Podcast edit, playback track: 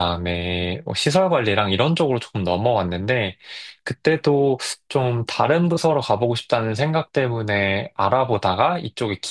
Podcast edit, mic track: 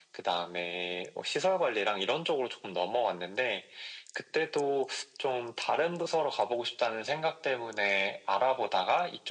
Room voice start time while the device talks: none

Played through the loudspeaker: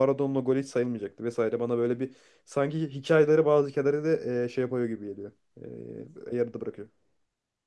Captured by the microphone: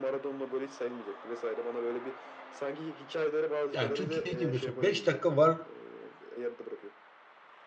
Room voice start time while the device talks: 3.7 s

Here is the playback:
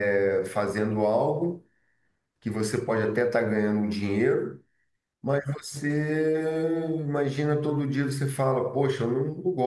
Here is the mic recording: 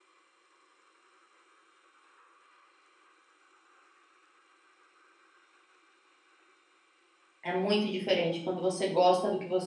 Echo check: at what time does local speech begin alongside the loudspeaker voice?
7.4 s

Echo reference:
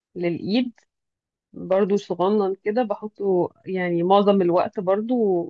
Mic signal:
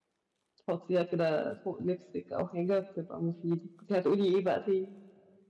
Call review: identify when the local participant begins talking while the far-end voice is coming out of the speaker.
0.6 s

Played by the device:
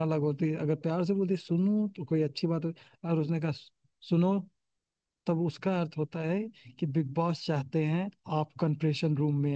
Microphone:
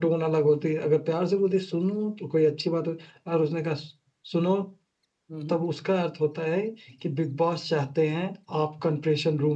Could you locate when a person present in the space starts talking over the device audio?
5.3 s

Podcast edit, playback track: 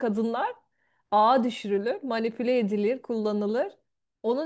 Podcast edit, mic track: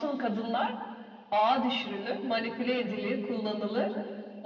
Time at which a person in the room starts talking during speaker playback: none

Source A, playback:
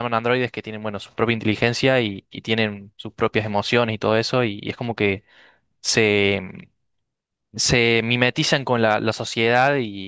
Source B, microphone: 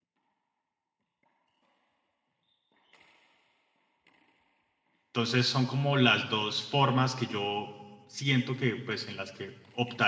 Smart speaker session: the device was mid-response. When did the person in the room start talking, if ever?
5.1 s

